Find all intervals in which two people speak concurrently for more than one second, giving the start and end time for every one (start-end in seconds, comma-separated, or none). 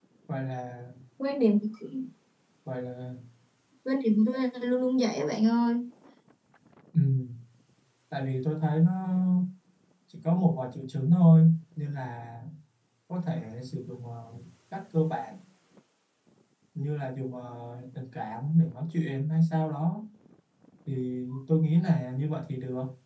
none